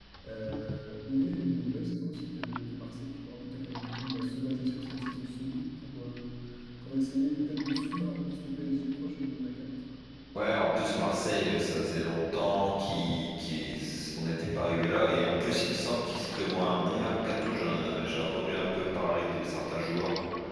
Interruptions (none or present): none